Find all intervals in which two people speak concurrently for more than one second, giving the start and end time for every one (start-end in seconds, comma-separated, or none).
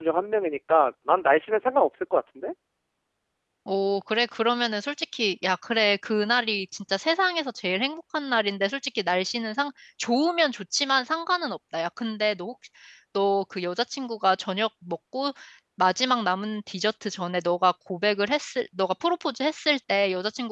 none